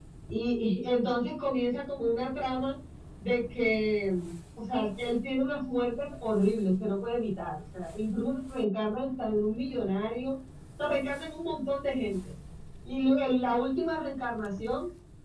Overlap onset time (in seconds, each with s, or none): none